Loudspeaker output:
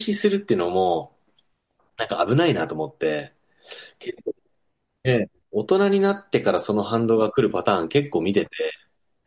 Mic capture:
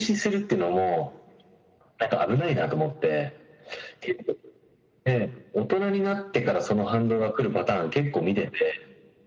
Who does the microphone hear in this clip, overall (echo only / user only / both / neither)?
echo only